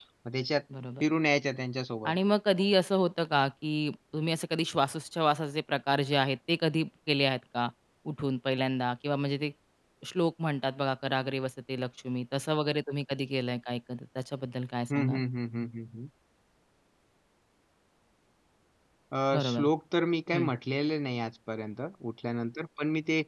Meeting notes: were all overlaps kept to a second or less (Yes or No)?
Yes